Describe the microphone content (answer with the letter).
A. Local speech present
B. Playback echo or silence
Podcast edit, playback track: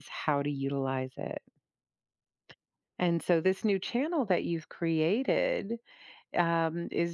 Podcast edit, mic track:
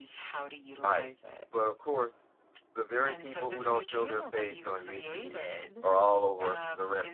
A